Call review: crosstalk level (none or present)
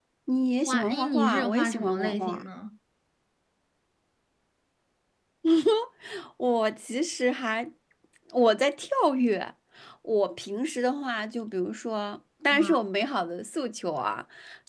present